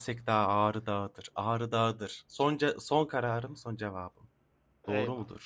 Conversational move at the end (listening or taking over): taking over